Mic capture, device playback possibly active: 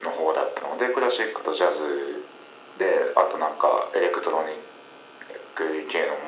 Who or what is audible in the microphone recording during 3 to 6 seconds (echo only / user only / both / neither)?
echo only